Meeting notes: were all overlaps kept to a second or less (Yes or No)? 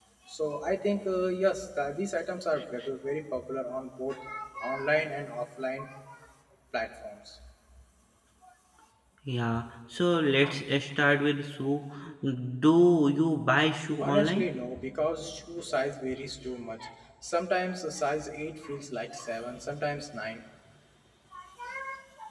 Yes